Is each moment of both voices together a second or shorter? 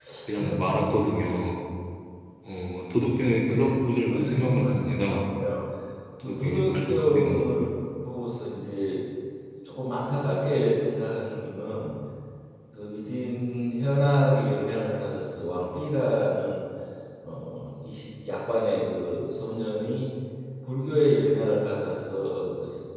No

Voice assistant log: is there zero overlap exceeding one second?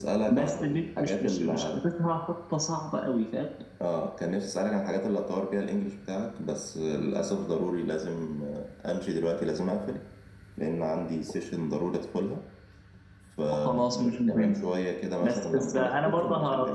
No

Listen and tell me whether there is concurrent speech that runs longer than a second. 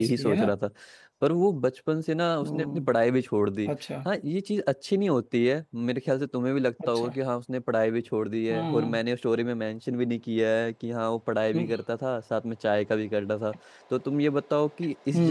No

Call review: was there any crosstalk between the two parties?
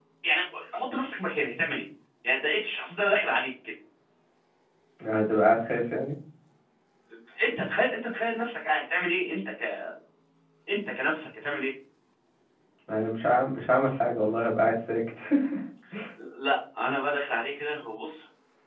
No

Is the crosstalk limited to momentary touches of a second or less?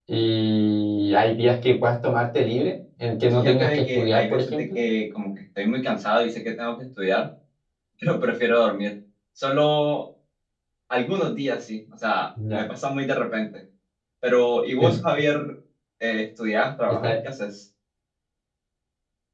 No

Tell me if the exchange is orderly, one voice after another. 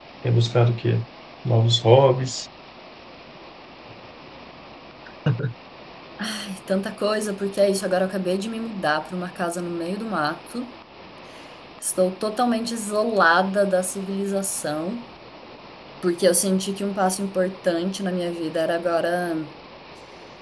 Yes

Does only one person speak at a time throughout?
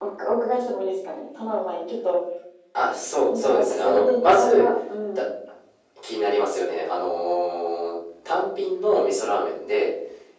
No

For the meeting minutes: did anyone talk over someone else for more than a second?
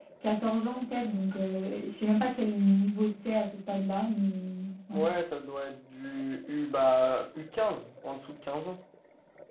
No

